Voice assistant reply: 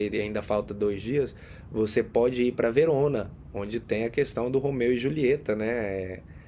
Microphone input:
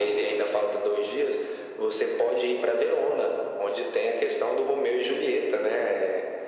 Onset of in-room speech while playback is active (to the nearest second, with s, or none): none